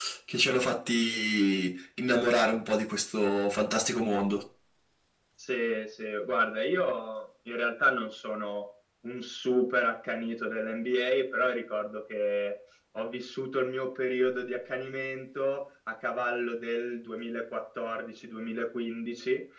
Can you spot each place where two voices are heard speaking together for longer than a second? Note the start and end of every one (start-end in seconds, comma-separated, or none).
none